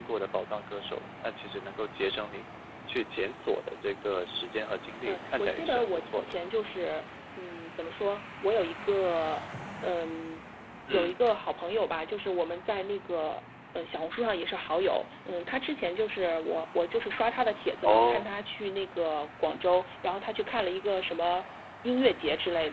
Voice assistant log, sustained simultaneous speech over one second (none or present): present